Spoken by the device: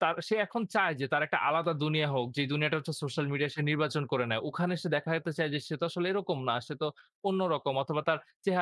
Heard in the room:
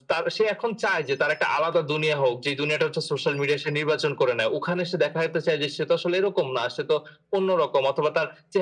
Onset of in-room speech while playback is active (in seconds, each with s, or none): none